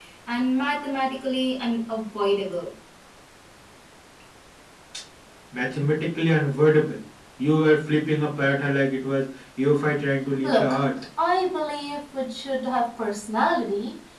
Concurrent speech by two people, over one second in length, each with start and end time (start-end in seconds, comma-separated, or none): none